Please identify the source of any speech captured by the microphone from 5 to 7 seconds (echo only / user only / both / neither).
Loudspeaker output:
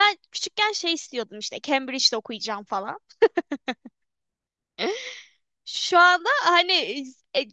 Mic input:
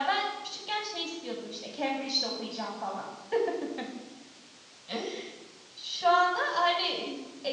echo only